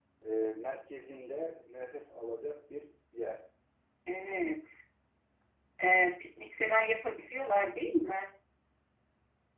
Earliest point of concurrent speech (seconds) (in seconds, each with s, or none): none